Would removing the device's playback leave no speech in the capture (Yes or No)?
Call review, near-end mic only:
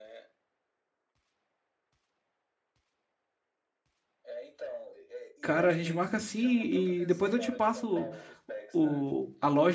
No